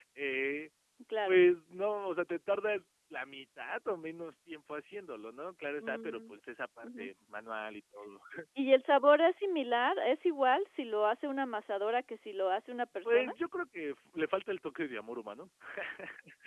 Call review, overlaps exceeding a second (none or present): none